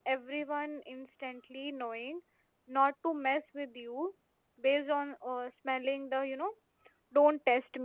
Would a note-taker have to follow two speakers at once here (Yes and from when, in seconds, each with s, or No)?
No